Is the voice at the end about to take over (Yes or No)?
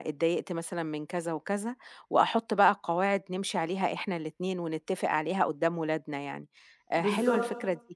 No